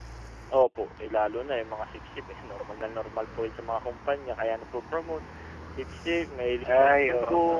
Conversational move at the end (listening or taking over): taking over